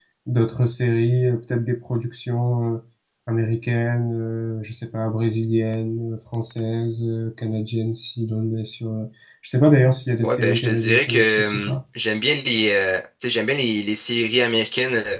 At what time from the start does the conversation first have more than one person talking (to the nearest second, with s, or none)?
10 s